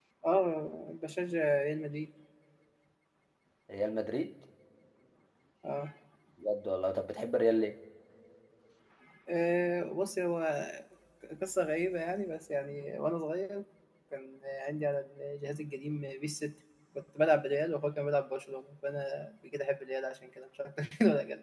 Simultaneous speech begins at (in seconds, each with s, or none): none